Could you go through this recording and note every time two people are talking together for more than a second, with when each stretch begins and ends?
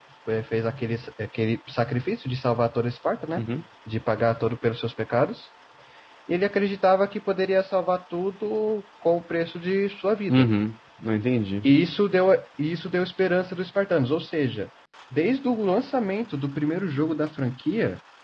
none

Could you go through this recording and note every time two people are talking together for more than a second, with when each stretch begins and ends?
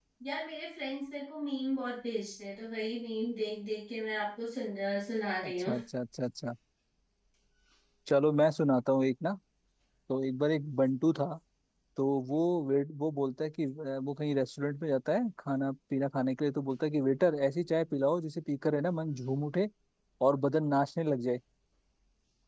none

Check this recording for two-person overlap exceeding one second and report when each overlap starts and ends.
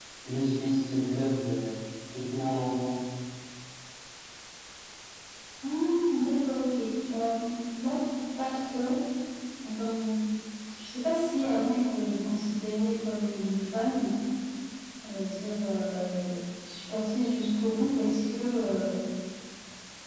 none

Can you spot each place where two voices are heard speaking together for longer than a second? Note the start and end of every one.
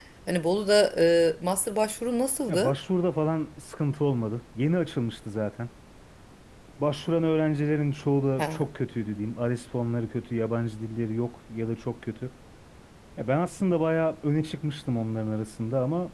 none

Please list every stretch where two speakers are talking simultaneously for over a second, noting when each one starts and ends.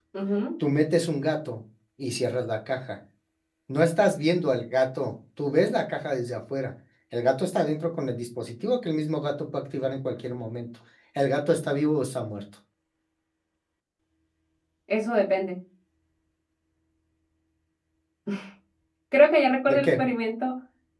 none

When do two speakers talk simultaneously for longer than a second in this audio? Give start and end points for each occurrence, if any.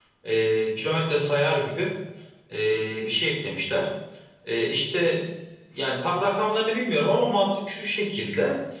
none

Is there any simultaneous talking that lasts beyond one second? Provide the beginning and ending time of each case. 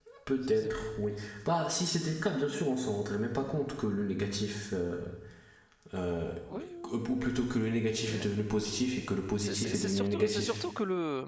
9.4-10.6

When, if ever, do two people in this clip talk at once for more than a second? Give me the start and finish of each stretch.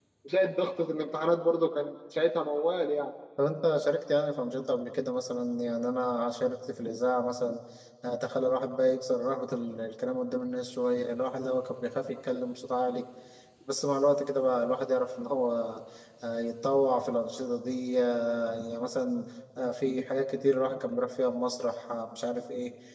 none

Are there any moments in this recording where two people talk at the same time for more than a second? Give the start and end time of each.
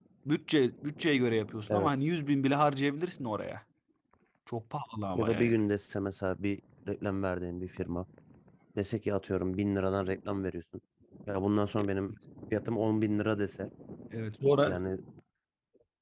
none

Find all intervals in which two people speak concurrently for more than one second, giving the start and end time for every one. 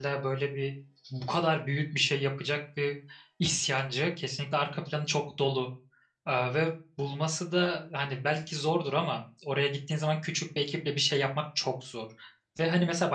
none

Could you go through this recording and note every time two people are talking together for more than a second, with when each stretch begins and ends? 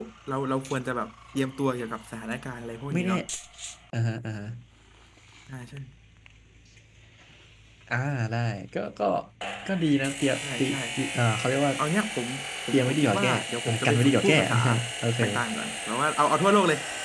12.7-14.6

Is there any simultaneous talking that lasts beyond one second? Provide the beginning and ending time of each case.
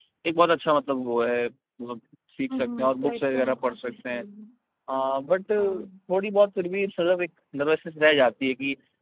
2.5-4.2

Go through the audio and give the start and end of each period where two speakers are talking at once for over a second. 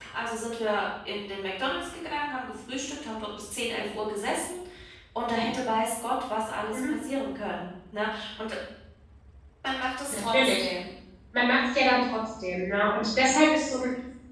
none

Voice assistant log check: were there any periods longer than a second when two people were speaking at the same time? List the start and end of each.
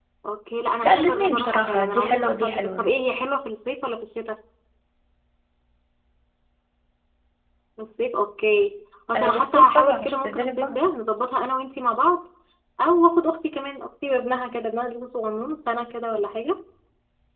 0.8-2.9, 9.2-10.7

